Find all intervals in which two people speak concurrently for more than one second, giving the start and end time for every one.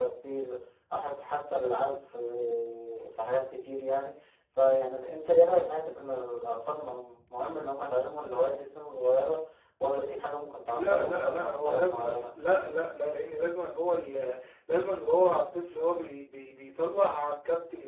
10.8-12.2

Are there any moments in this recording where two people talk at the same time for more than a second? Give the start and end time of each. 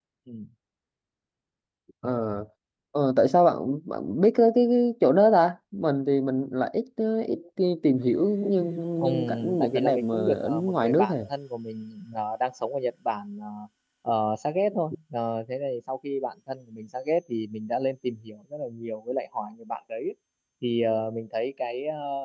9.0-11.1

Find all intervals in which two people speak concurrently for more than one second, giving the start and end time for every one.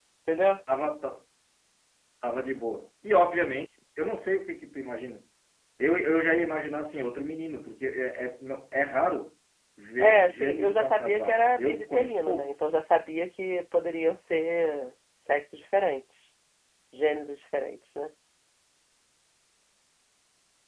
10.0-12.5

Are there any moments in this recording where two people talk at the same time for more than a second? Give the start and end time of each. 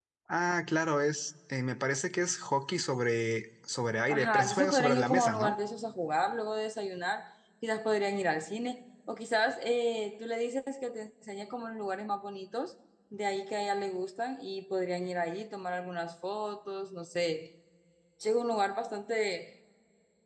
4.1-5.5

